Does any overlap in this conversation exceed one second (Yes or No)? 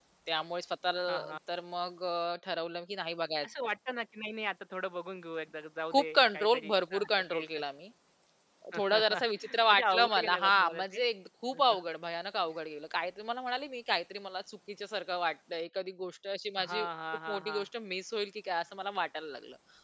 Yes